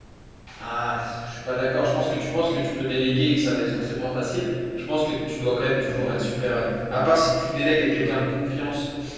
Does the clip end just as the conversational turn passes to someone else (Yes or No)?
No